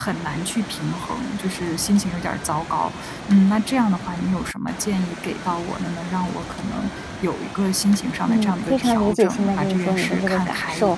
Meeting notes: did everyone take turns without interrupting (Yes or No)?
No